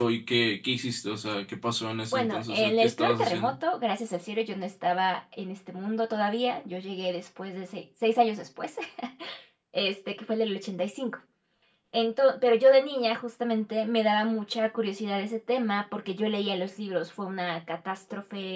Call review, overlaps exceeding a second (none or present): present